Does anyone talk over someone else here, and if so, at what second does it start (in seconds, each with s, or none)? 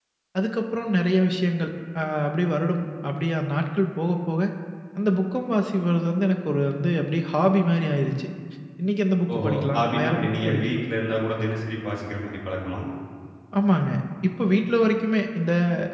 9.3 s